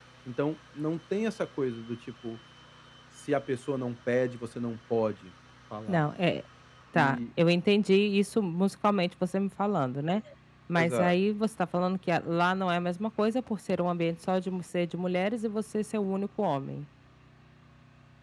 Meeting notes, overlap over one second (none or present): none